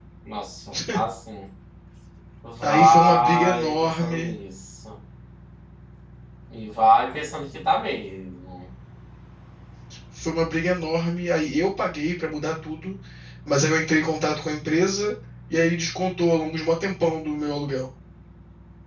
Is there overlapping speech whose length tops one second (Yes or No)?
Yes